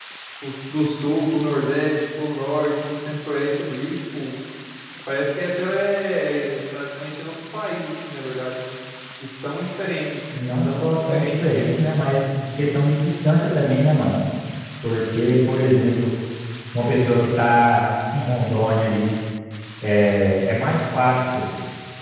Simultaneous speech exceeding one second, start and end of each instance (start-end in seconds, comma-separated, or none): 10.3-11.7